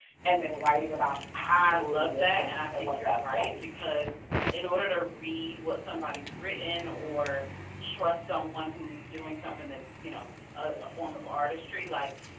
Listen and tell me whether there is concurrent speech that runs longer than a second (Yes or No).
Yes